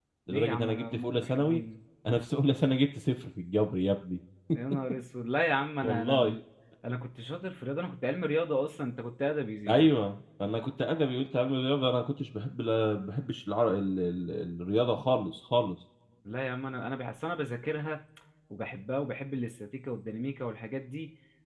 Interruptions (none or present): present